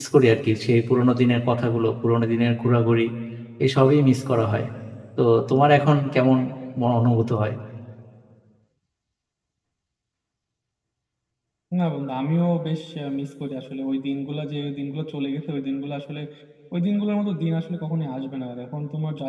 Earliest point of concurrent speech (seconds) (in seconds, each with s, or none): none